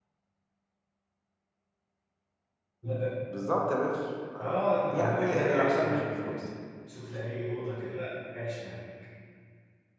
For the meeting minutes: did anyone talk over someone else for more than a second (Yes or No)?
Yes